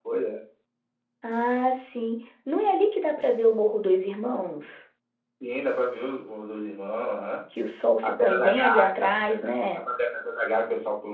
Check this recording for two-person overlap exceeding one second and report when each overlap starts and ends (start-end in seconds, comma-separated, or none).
8.0-9.8